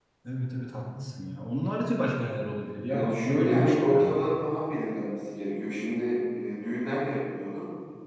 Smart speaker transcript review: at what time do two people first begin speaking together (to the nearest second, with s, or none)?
3 s